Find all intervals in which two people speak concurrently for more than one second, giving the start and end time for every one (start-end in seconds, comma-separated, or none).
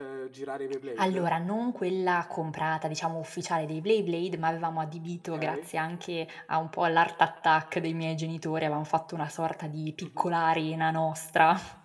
none